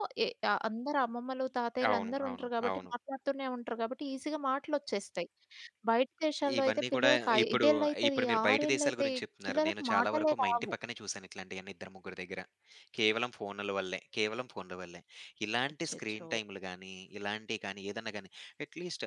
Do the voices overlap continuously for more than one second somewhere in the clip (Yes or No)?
Yes